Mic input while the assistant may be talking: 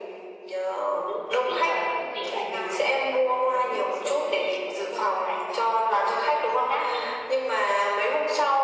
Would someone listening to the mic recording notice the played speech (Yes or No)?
Yes